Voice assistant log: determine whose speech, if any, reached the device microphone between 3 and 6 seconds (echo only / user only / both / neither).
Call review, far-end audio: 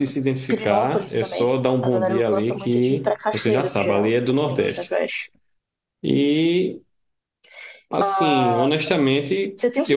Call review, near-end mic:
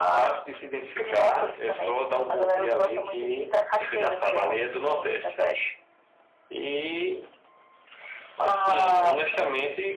echo only